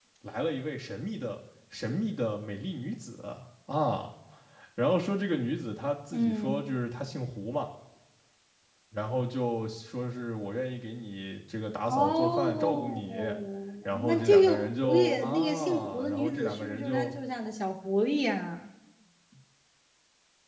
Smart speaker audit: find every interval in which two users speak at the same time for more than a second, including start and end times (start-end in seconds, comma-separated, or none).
11.9-13.3, 14.0-17.1